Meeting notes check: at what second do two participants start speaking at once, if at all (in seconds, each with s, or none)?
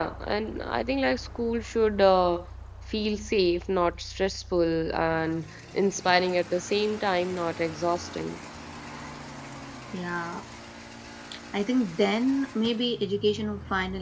none